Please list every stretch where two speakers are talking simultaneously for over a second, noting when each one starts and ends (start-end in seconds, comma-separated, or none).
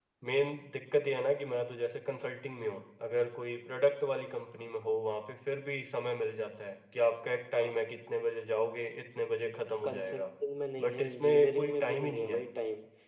10.8-12.4